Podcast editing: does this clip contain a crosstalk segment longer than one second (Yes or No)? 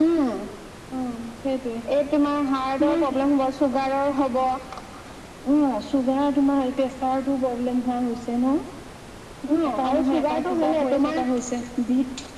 Yes